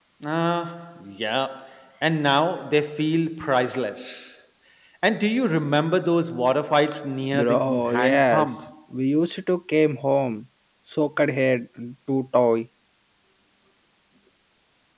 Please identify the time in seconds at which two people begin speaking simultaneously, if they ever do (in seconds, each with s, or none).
7.3 s